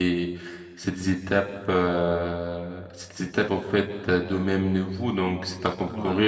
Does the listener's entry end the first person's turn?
No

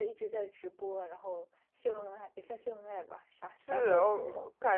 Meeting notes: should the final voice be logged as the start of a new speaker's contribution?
Yes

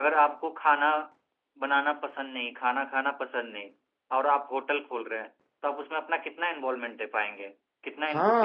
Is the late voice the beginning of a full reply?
Yes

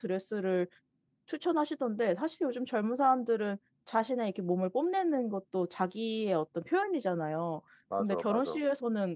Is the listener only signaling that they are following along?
Yes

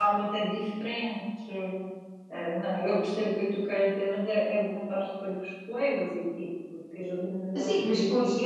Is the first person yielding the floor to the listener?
Yes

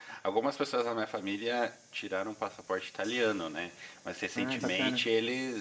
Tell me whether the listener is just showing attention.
Yes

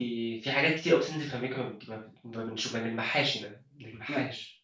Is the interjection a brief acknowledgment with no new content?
No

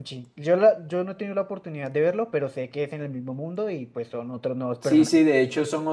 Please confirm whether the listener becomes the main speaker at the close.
Yes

